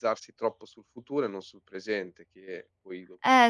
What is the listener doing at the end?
taking over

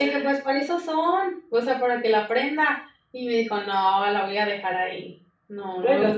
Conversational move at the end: taking over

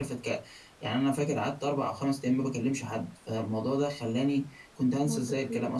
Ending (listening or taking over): listening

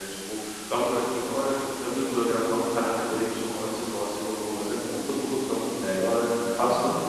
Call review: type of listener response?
listening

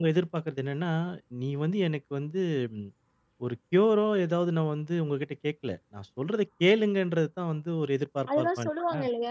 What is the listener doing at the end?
taking over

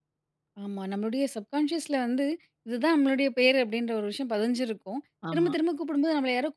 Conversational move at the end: listening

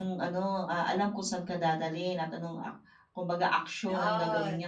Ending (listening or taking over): listening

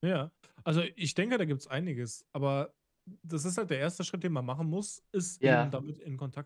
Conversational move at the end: listening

